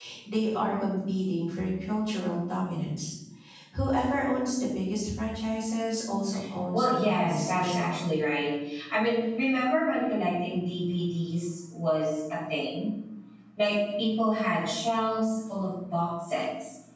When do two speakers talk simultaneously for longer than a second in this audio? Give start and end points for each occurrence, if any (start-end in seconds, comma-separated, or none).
6.7-7.9